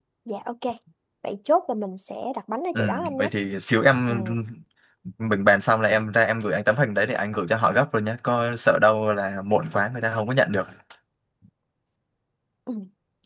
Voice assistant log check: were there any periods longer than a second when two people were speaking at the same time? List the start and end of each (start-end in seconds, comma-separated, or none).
none